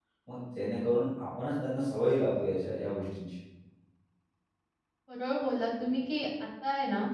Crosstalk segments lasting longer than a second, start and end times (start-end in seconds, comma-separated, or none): none